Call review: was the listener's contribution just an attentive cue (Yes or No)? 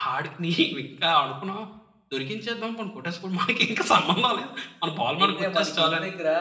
No